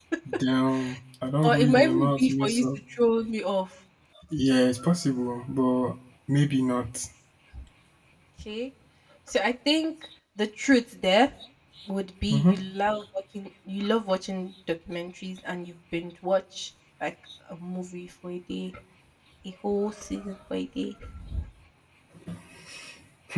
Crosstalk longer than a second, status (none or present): present